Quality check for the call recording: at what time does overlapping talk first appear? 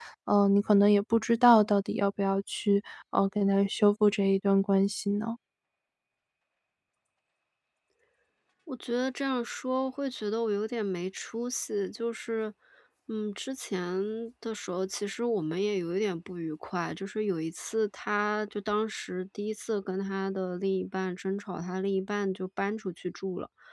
none

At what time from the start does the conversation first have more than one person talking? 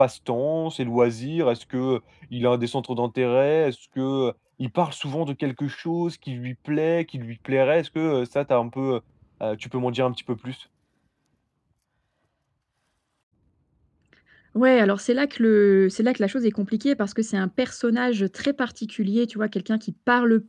none

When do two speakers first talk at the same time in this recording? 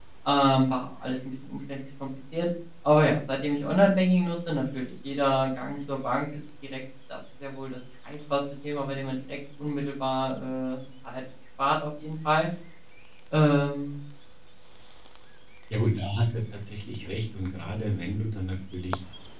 none

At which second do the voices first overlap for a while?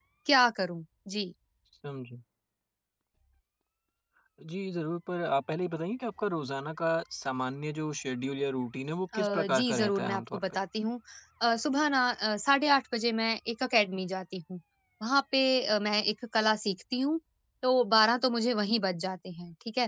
9.1 s

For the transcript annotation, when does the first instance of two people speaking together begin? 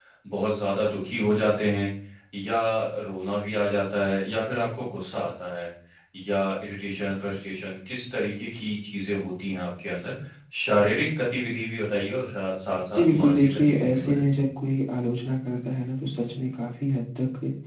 12.9 s

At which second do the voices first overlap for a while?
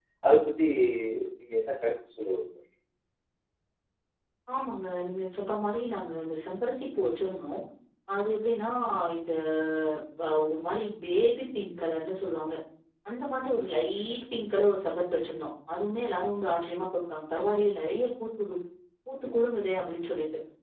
none

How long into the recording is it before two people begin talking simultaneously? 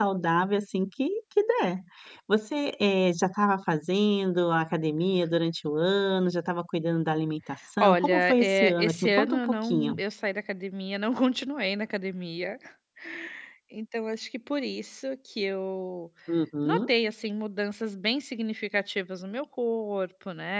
7.8 s

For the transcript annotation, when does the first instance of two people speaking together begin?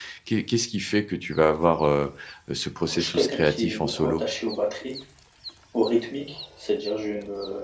2.9 s

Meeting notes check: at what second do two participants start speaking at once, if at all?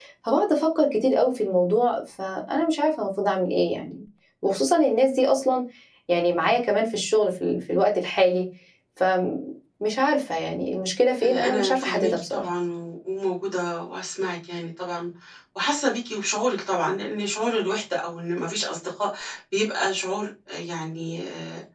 11.2 s

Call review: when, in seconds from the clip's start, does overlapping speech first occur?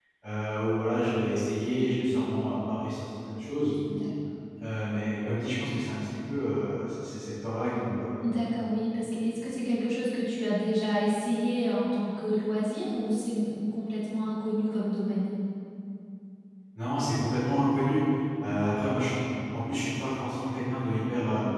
none

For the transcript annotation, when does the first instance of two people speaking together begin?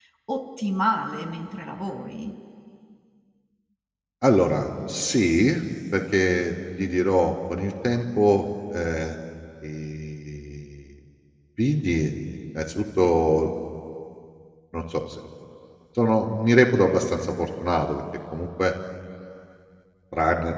none

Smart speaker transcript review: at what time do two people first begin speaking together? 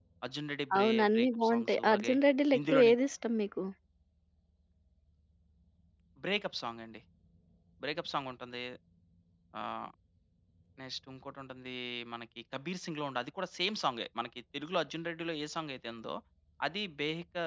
0.8 s

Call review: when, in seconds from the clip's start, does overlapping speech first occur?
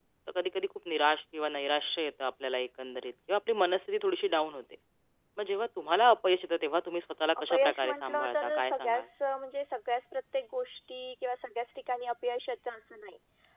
7.5 s

